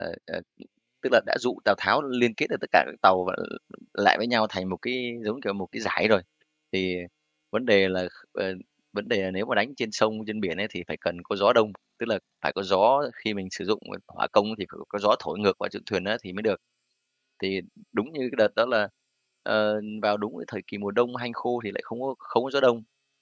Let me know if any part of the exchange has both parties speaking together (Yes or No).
No